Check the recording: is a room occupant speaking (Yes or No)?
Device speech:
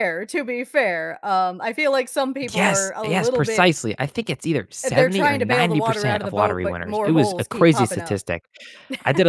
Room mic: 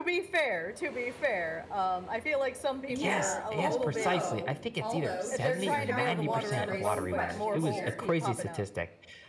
Yes